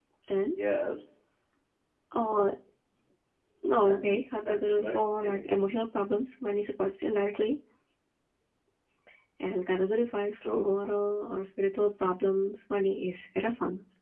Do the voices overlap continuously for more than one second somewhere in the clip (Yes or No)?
Yes